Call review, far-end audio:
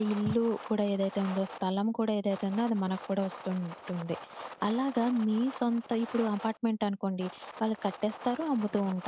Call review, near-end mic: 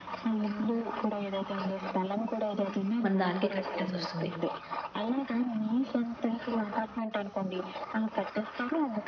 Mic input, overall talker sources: both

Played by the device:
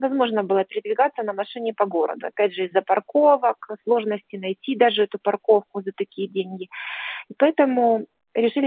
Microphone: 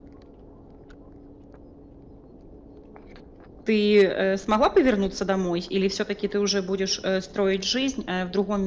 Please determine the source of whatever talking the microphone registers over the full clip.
user only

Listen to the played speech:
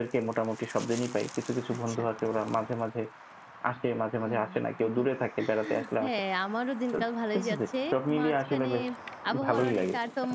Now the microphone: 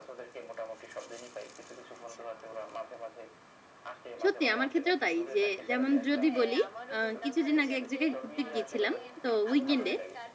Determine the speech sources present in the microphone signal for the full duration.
both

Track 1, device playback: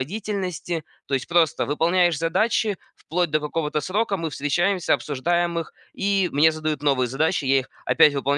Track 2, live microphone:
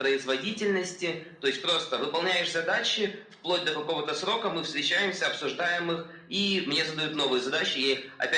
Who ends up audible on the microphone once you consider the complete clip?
echo only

